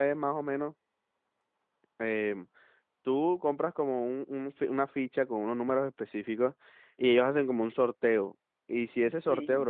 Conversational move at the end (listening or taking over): listening